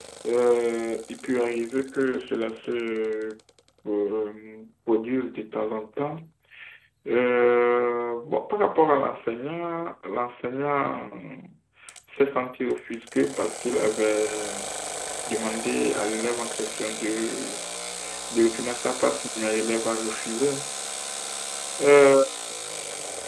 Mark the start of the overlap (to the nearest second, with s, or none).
none